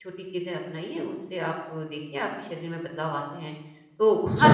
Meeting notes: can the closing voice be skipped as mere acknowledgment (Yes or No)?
Yes